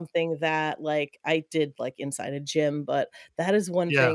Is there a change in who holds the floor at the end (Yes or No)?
No